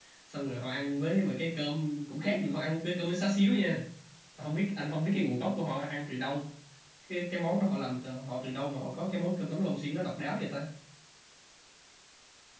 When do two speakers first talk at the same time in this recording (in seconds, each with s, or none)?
none